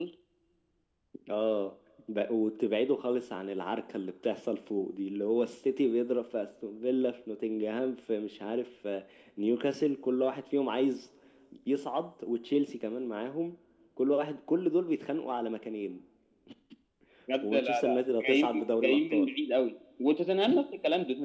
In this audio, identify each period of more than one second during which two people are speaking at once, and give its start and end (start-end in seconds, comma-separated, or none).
17.4-19.3